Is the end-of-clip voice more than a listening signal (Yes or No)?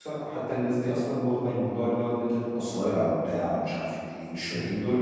Yes